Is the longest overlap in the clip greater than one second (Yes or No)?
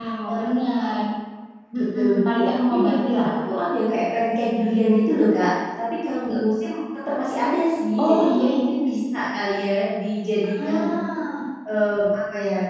Yes